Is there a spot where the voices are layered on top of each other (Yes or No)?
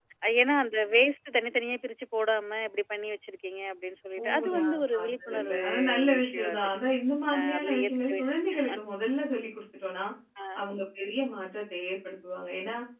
Yes